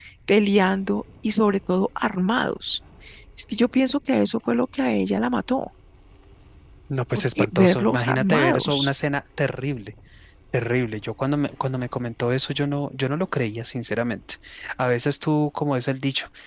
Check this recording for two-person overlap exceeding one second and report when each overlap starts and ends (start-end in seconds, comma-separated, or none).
7.2-8.9